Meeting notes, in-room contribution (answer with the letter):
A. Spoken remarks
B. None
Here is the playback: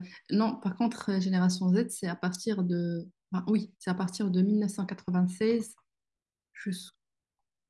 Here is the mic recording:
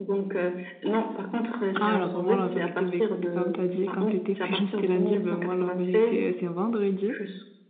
A